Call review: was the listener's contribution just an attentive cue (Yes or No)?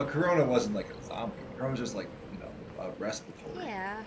No